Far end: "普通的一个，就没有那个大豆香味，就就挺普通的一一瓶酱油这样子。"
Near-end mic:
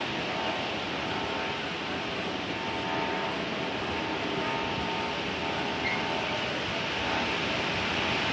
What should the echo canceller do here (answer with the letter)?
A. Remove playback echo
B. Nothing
B